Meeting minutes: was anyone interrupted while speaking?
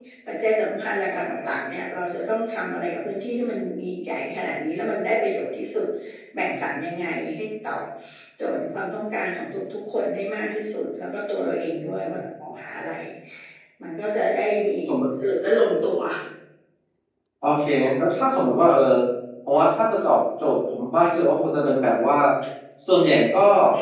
No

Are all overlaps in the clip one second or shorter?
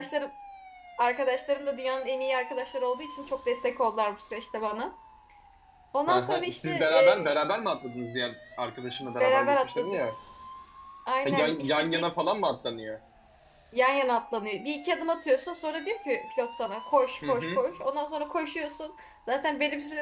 No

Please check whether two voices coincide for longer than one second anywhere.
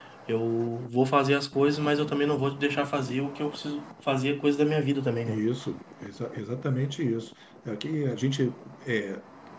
No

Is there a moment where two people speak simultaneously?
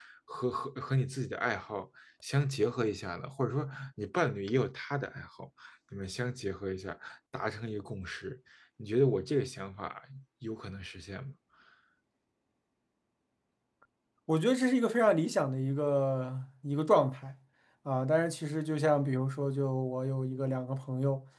No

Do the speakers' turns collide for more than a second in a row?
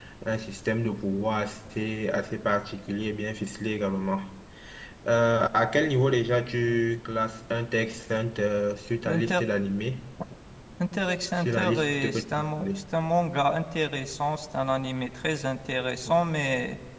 Yes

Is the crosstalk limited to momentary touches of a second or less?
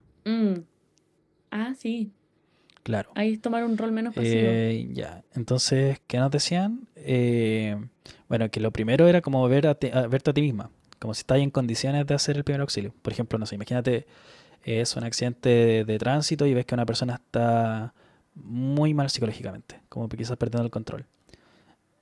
Yes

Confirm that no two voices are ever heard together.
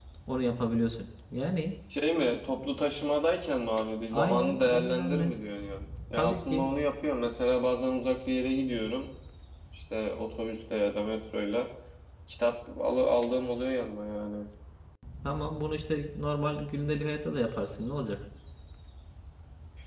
No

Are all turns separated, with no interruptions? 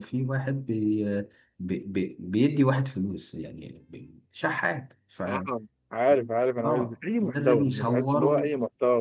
No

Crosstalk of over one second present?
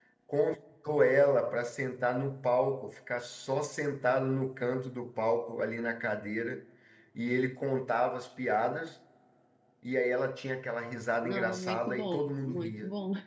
Yes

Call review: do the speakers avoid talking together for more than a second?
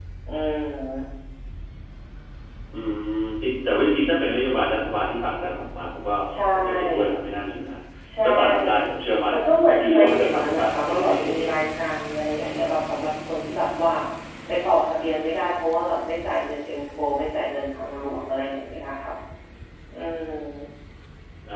No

